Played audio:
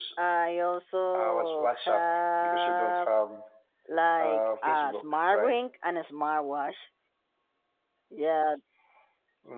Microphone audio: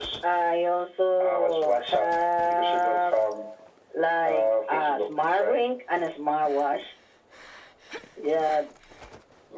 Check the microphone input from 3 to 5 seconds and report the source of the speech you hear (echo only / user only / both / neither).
echo only